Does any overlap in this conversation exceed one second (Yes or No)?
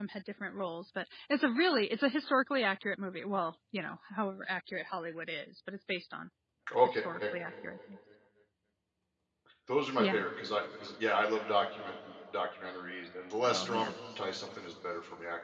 No